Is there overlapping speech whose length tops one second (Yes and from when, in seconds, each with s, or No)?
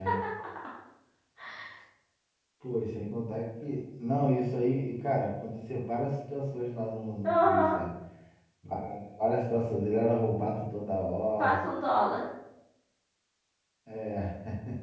No